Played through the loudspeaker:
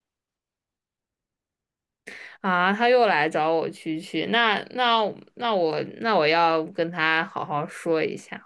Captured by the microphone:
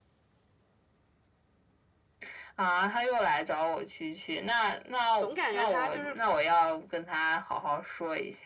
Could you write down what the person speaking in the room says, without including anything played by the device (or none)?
总感觉他就是